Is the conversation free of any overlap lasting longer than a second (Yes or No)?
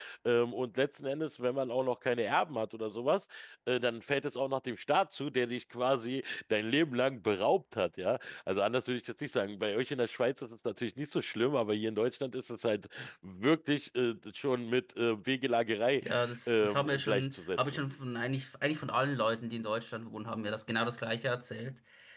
No